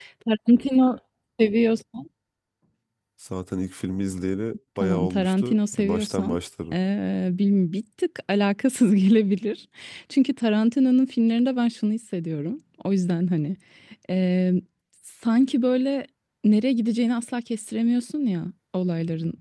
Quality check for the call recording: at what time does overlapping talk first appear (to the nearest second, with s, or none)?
5 s